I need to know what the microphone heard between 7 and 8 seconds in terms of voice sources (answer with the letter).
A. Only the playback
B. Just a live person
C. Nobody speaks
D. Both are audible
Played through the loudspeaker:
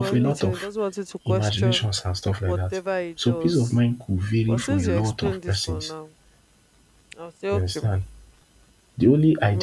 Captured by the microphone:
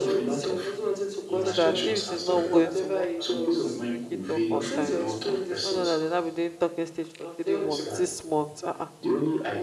D